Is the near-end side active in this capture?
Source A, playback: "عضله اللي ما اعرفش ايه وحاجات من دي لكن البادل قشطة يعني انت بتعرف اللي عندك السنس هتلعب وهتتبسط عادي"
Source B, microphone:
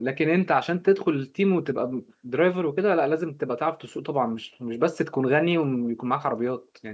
Yes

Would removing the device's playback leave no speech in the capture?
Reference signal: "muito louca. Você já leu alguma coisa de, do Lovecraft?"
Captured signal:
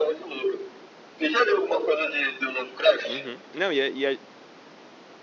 No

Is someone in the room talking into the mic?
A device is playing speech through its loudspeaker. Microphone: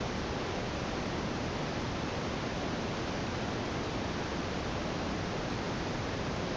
No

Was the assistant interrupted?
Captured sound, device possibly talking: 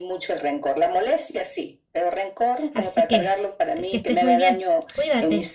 Yes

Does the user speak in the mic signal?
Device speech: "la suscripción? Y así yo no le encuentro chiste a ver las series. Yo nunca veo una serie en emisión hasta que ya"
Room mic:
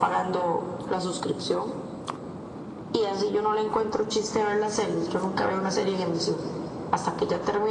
No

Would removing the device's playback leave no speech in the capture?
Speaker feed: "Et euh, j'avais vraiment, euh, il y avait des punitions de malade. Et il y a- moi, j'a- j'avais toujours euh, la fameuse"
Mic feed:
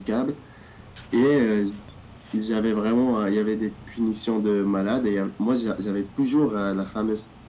Yes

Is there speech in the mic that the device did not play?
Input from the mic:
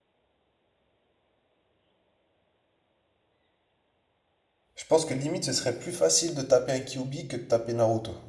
Yes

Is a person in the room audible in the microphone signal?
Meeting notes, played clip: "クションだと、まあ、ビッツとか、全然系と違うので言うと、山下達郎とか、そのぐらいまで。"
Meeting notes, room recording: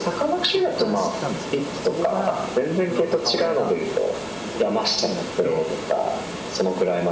Yes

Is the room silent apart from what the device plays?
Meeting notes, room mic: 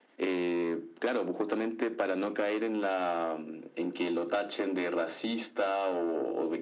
Yes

